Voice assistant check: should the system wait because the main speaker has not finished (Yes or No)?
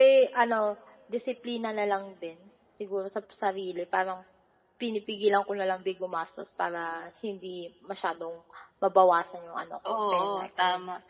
No